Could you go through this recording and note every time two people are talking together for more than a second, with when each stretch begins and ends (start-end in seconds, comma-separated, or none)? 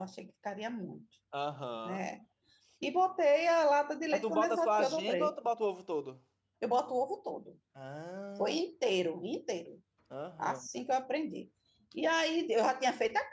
4.1-5.3